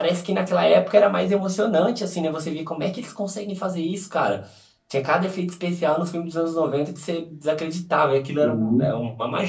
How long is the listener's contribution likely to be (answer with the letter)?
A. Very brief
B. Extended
A